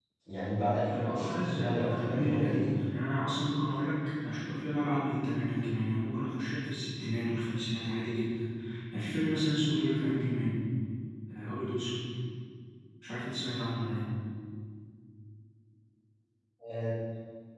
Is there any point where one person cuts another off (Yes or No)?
Yes